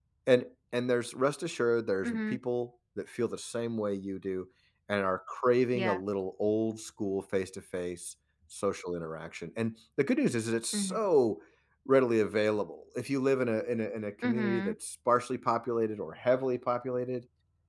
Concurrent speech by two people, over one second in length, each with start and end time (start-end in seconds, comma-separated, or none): none